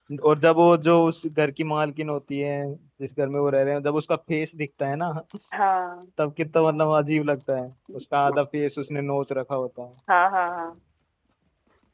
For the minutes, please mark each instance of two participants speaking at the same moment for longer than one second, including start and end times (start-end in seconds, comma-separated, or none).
none